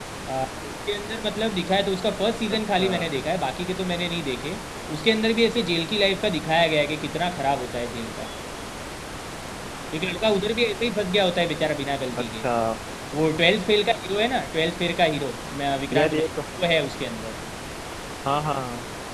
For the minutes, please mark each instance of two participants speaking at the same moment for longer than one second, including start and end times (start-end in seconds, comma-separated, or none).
none